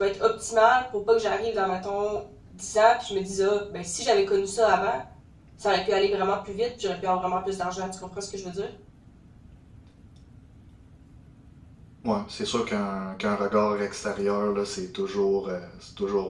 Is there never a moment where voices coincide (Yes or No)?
Yes